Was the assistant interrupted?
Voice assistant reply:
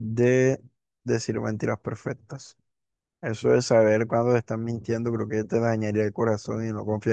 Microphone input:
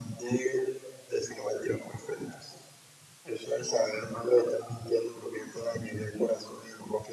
No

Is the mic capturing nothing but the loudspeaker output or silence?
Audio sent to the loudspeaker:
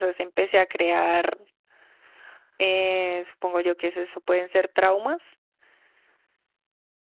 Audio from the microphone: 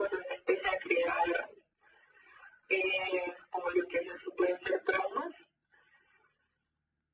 Yes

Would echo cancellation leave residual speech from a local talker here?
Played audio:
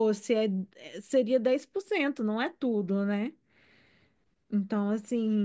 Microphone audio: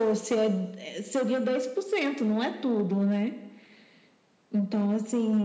No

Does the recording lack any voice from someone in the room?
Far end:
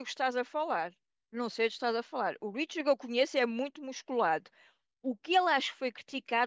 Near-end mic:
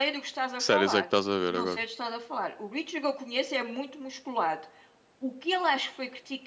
No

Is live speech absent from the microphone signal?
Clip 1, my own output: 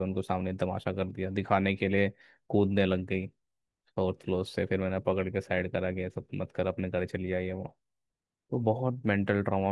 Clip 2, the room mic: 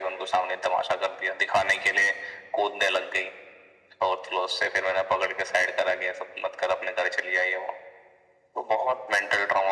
Yes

